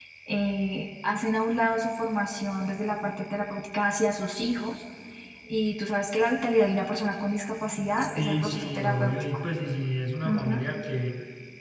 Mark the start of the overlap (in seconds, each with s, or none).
8.0 s